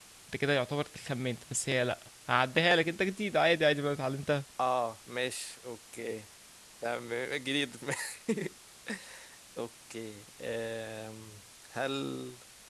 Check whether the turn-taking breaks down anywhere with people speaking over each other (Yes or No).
No